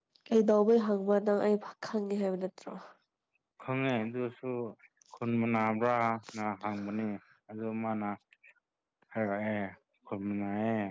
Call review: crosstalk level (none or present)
none